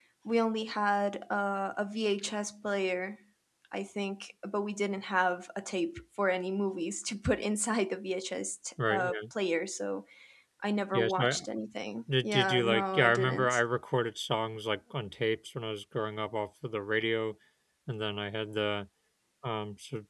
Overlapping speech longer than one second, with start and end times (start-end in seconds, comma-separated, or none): 12.2-13.6